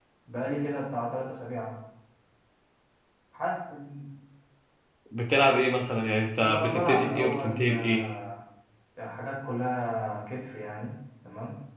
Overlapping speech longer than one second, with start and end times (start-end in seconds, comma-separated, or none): 6.4-8.0